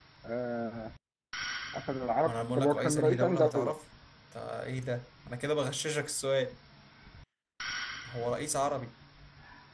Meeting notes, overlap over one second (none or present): present